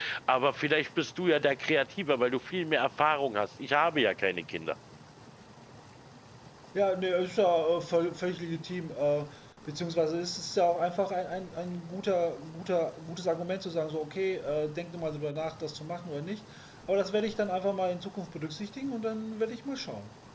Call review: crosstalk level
none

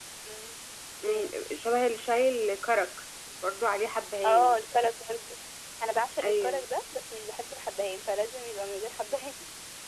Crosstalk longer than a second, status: none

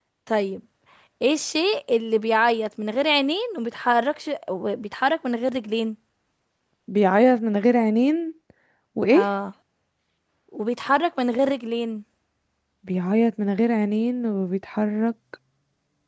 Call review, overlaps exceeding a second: none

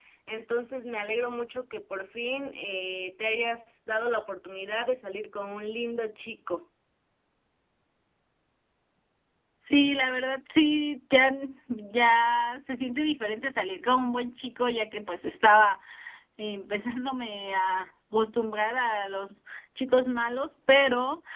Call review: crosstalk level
none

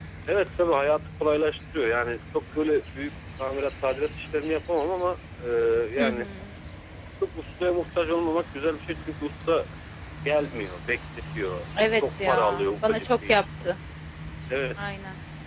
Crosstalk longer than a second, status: present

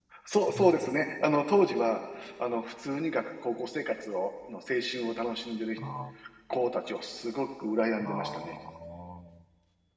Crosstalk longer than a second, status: none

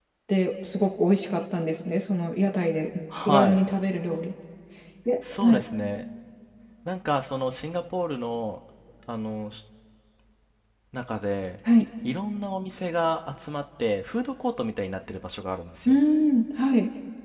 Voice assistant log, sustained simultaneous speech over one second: none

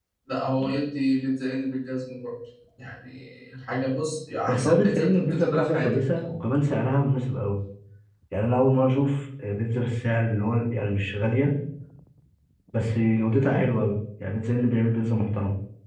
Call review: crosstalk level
present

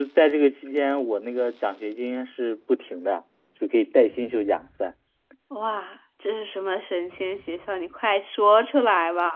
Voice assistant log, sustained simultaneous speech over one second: none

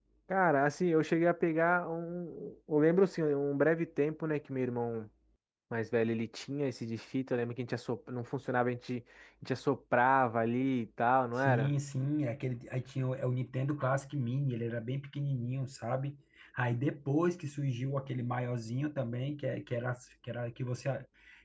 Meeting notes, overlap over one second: none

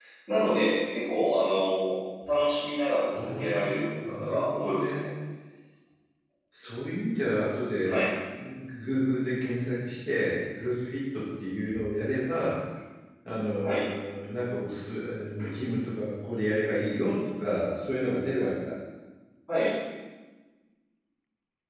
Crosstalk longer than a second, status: present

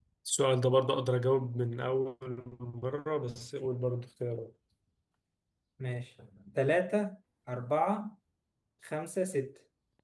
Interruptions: none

